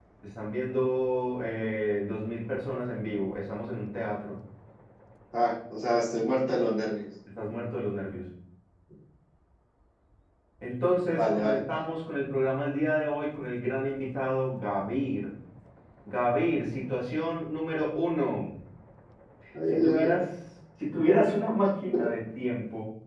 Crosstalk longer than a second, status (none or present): none